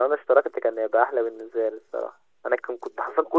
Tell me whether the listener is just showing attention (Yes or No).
Yes